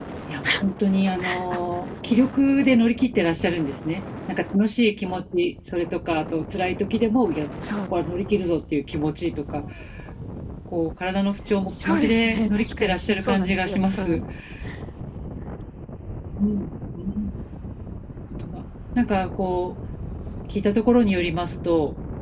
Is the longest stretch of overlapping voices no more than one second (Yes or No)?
No